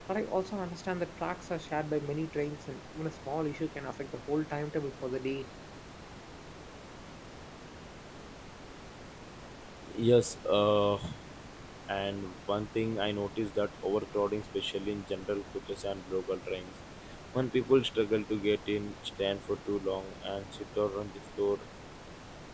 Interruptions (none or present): none